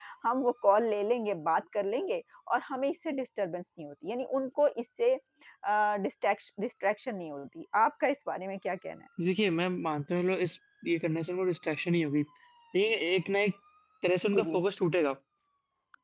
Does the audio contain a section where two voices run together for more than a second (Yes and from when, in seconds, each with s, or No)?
No